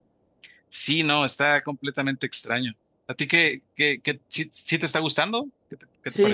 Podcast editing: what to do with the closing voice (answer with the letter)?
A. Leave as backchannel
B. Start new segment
B